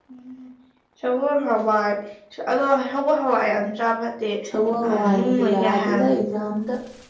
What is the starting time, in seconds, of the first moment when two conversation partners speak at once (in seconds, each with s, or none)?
4.8 s